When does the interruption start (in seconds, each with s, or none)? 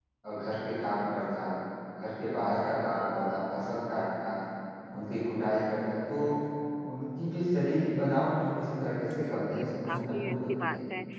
9.4 s